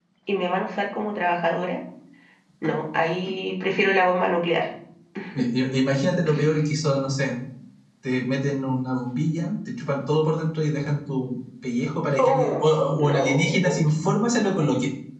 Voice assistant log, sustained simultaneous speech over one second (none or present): present